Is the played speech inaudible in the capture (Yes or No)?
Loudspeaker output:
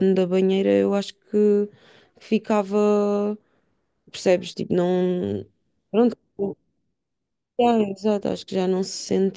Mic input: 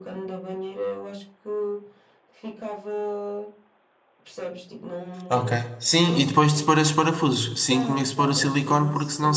No